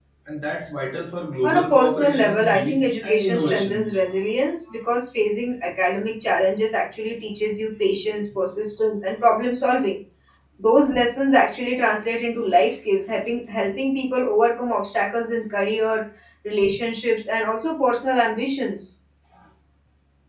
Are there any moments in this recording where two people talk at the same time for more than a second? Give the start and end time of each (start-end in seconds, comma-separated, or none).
1.4-4.0